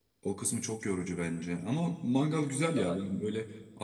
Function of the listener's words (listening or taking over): listening